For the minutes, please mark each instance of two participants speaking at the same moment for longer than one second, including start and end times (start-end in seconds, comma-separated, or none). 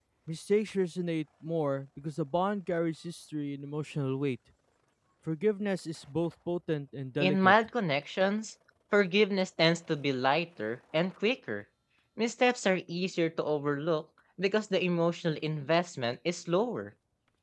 none